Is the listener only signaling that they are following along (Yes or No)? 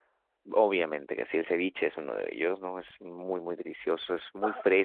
Yes